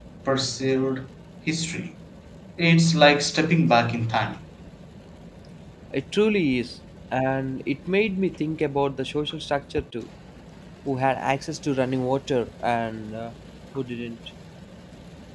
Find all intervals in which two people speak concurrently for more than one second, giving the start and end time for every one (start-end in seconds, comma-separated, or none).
none